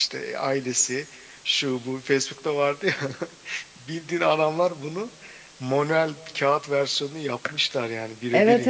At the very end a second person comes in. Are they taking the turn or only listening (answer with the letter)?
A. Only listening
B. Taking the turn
B